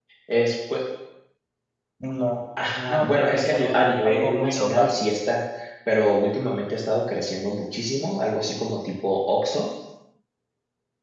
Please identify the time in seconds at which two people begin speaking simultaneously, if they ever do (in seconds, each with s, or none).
2.9 s